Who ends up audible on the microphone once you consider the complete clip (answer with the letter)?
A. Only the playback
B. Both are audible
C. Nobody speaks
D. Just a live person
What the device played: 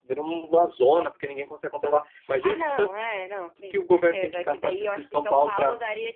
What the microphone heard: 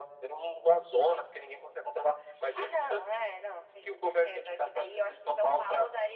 A